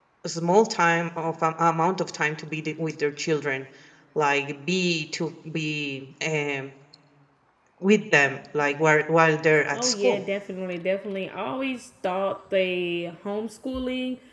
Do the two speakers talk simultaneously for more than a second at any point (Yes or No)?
No